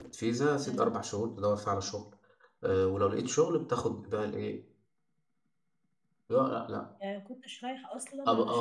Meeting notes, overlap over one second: none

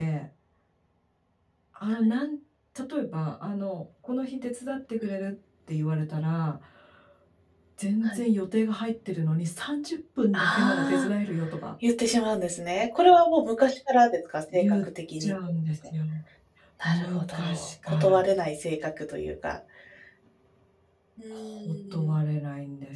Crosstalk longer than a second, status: present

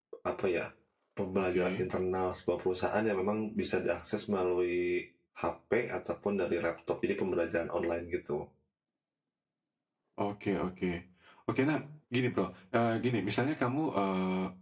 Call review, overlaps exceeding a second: none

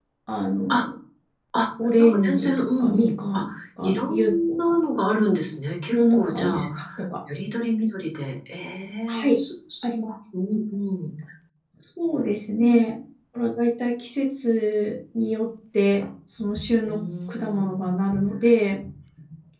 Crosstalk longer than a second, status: present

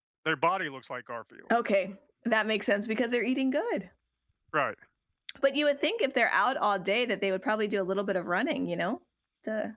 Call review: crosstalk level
none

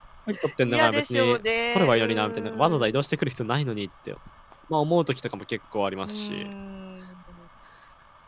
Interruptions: present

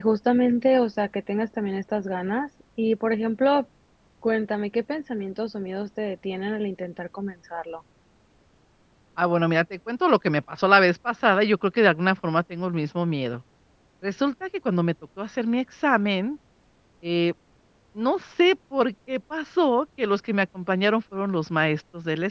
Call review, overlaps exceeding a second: none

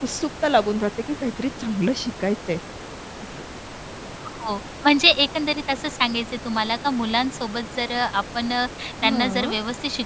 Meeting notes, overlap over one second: none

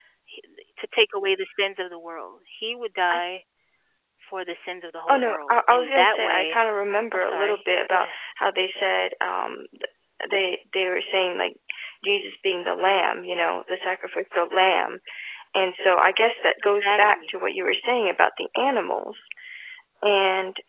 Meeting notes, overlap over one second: present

